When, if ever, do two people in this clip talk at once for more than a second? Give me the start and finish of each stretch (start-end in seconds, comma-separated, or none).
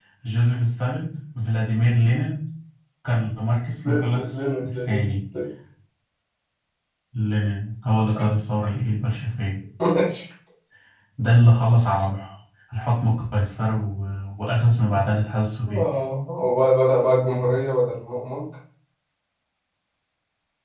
3.9-5.0